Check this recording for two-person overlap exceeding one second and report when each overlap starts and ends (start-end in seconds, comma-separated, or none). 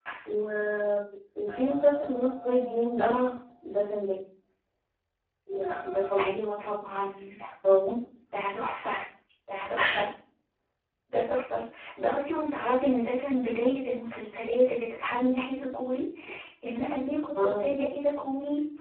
none